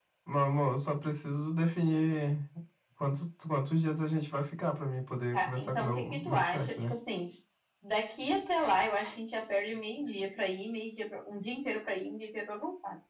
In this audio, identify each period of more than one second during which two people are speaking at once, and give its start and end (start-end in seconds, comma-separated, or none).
5.3-6.9